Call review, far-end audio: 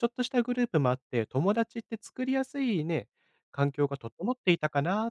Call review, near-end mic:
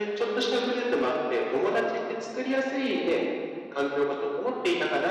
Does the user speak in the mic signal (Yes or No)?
No